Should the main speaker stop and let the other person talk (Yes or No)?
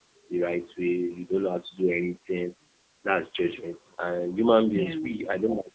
No